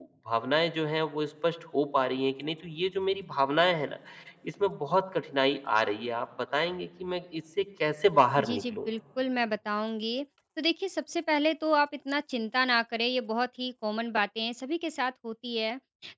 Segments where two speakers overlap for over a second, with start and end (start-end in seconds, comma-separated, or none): none